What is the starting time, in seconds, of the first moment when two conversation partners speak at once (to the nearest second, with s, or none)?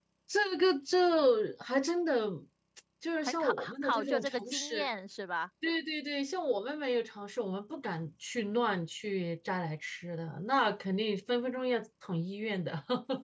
3 s